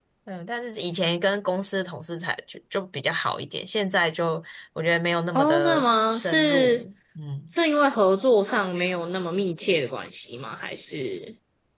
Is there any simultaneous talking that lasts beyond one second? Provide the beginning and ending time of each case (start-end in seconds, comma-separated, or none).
5.4-6.8